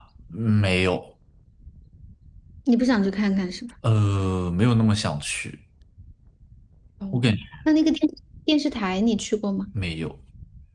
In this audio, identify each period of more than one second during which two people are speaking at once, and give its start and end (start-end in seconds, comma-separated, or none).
none